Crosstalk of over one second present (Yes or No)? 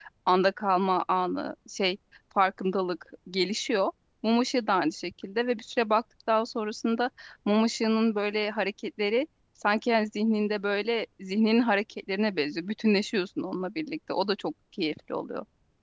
No